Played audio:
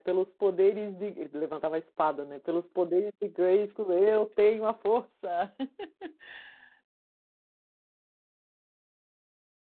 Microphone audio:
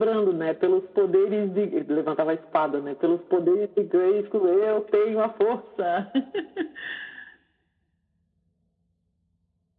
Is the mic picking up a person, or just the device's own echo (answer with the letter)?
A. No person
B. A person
A